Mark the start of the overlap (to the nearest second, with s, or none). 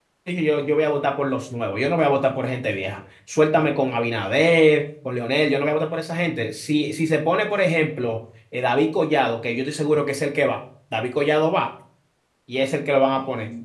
none